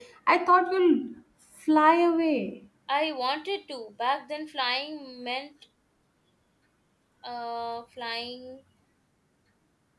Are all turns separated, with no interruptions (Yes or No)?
Yes